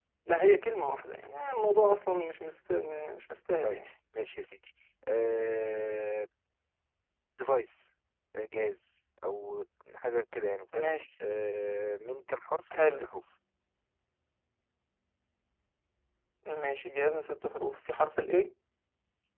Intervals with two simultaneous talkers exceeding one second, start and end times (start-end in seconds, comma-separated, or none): none